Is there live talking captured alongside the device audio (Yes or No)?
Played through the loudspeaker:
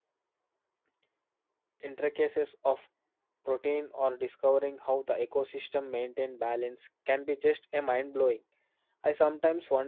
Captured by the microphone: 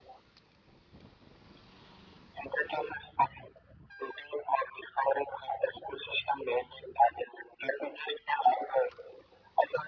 No